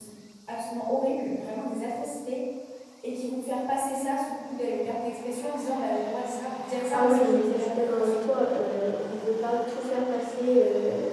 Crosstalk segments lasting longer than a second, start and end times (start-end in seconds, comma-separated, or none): 6.9-8.2